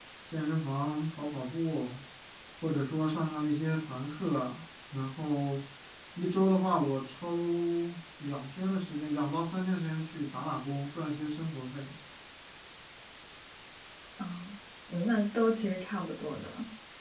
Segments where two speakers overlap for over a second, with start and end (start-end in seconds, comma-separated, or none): none